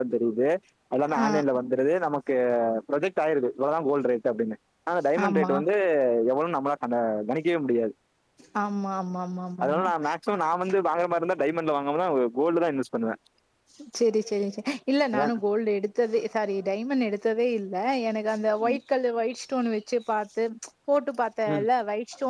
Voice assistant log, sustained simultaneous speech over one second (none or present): none